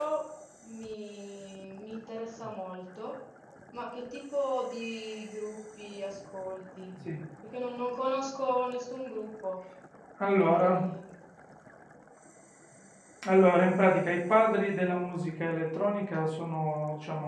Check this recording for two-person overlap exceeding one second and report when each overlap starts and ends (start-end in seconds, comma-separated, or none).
none